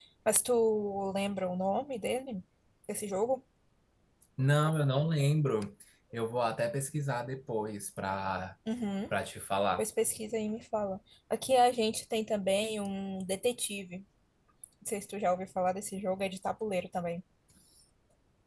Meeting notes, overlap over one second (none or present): none